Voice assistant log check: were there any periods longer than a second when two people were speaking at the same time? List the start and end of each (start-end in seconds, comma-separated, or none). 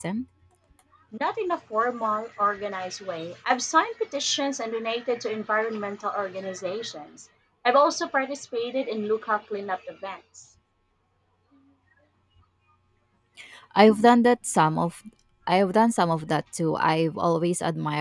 none